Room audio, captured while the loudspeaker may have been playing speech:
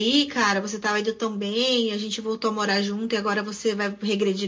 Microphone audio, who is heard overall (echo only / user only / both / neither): echo only